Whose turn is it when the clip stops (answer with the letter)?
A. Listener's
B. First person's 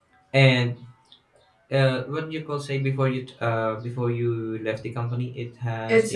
A